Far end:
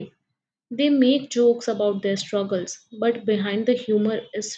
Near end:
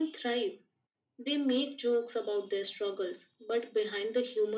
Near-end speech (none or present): none